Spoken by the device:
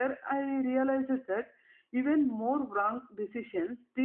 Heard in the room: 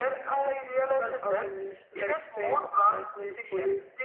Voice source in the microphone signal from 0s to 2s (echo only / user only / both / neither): both